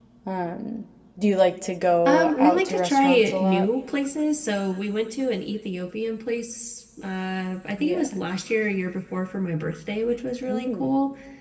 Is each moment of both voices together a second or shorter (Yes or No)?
No